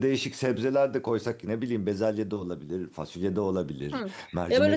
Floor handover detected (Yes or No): Yes